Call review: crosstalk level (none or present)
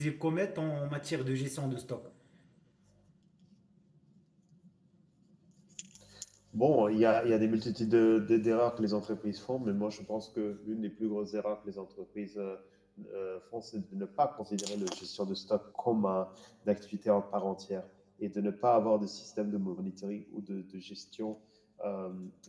none